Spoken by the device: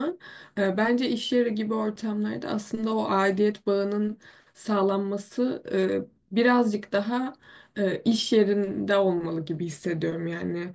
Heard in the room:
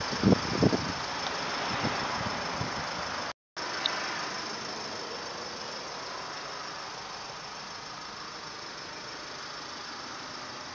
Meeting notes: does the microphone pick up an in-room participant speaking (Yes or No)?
No